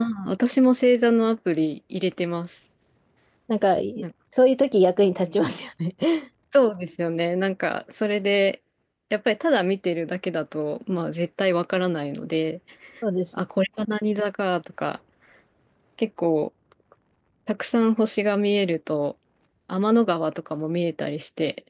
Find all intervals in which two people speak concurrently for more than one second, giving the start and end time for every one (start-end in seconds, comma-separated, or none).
none